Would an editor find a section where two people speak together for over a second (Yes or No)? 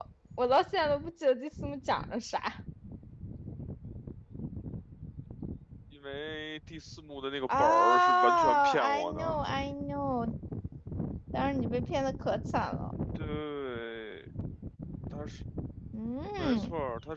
Yes